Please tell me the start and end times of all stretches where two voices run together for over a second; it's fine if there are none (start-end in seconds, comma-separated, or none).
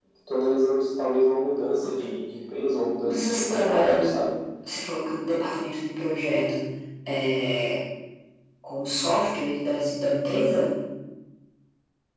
3.0-4.3